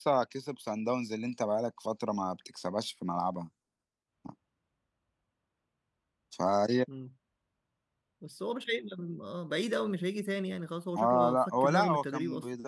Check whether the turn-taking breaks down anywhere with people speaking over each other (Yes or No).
Yes